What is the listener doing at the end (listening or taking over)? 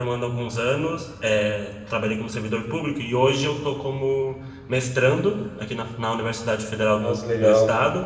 listening